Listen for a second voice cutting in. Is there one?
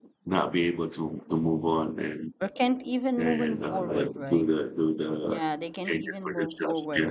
Yes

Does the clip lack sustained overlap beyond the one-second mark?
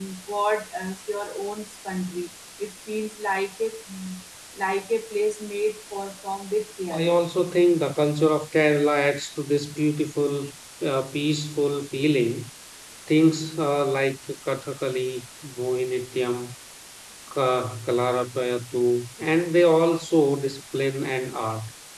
Yes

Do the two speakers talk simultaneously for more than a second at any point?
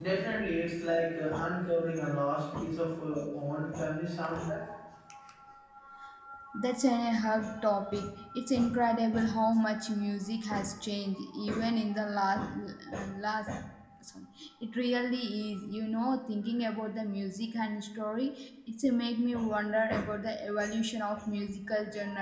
No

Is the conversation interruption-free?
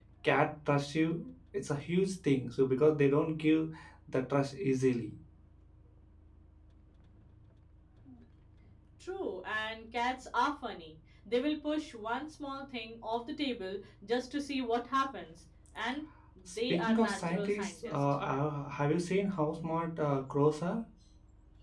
No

